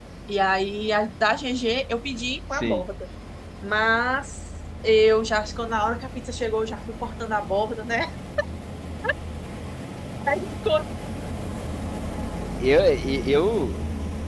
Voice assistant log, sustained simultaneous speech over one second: none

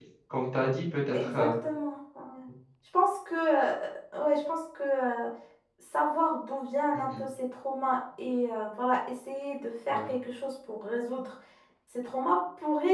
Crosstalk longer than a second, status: none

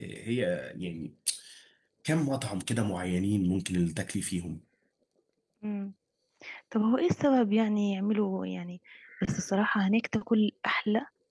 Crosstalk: none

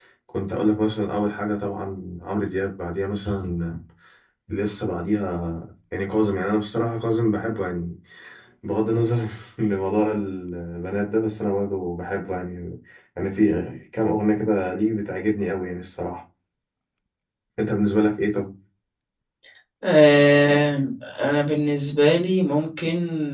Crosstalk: none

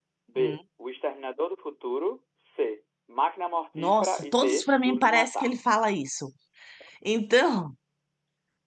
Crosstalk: present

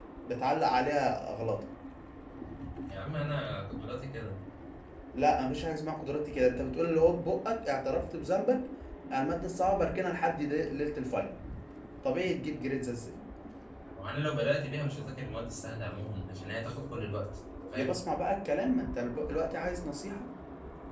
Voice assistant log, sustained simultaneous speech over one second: none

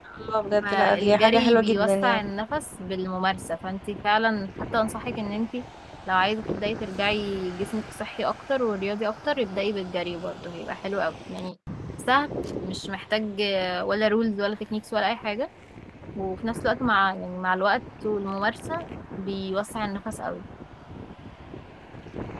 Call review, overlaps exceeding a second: present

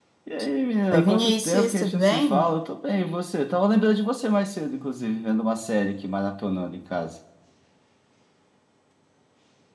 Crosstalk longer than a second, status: present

